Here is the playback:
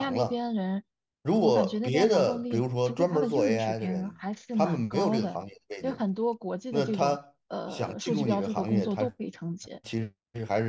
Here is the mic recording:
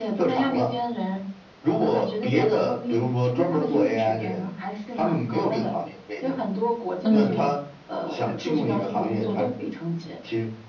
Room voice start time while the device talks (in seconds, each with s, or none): 7.0 s